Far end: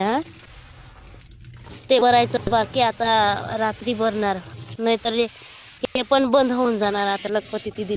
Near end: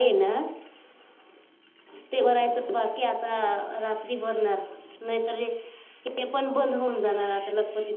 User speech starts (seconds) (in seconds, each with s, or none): none